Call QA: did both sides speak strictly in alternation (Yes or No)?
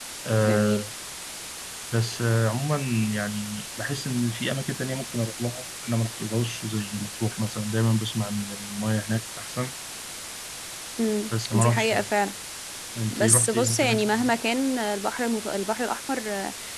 No